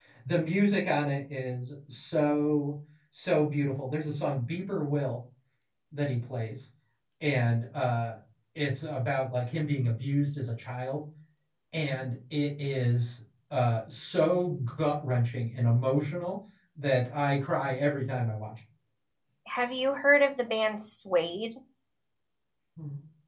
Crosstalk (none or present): none